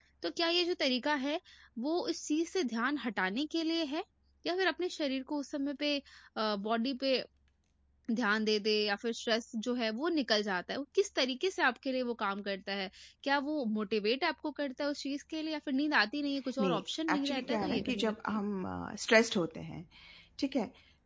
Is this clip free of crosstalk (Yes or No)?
No